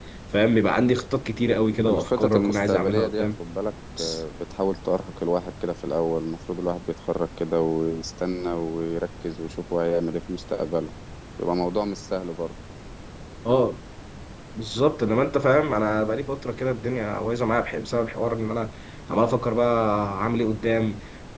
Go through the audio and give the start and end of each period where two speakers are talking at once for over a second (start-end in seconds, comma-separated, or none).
1.9-3.3